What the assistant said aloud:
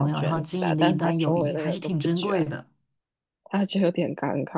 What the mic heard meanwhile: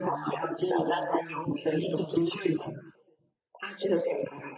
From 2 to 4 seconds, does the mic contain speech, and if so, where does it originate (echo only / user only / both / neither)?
echo only